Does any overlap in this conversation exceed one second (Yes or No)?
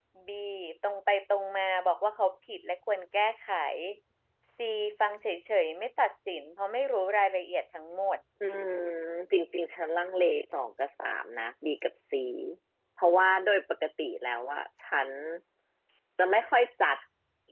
No